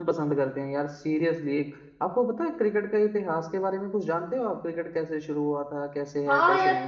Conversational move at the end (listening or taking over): taking over